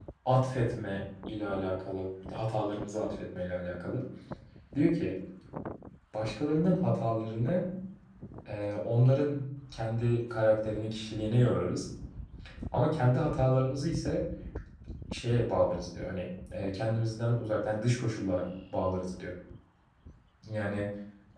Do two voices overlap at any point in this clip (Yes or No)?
No